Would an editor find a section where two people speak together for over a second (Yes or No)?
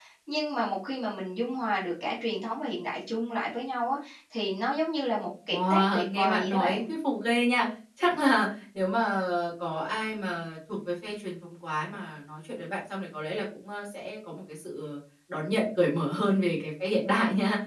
Yes